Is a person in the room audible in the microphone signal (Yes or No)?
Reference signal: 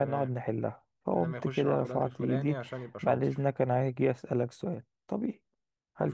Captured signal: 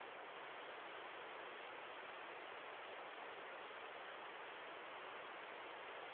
No